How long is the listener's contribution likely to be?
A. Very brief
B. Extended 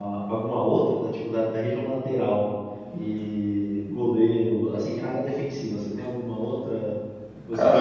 B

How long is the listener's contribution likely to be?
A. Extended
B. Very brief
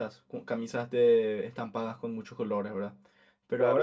B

